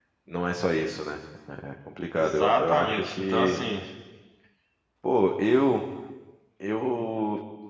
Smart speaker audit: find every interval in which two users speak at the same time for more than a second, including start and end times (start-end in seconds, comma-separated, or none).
2.1-3.6